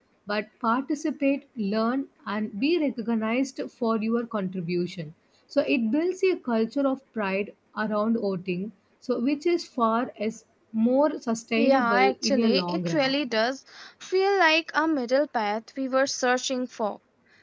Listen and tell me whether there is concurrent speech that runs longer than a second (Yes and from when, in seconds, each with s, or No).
Yes, from 11.6 s